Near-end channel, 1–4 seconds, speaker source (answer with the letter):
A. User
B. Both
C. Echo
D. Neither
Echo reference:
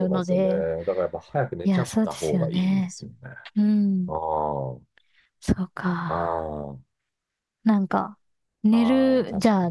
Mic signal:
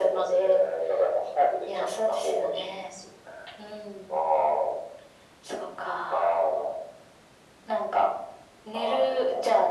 C